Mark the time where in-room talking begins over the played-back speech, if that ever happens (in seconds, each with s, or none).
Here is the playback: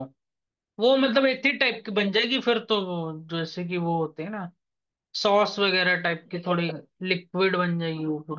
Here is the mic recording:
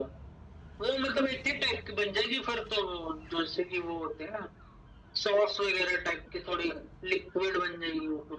none